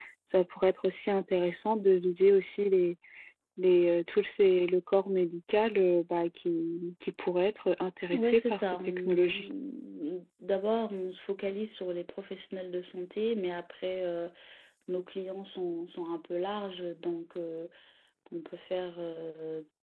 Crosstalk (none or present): present